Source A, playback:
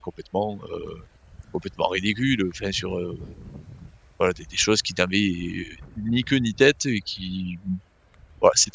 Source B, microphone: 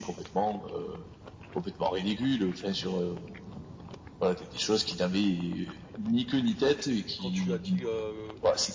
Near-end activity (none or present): present